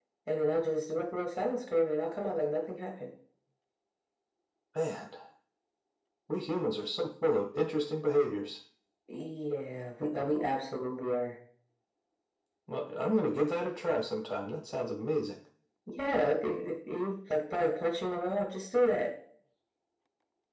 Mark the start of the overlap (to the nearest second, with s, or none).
none